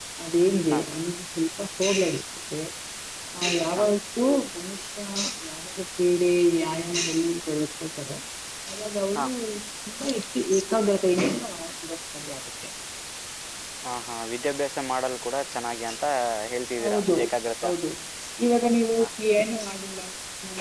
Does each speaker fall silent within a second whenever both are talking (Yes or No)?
Yes